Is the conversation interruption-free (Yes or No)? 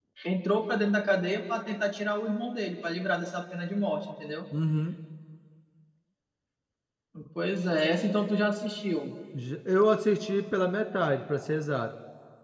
Yes